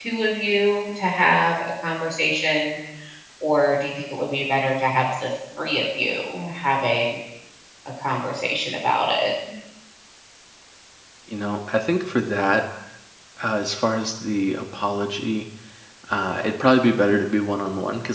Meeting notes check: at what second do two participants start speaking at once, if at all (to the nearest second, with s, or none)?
none